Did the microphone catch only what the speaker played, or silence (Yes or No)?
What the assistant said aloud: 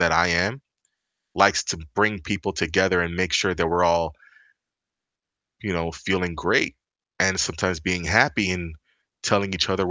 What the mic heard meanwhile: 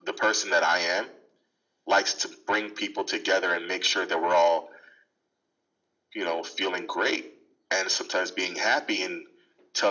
Yes